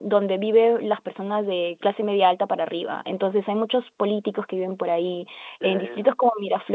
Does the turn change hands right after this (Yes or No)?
No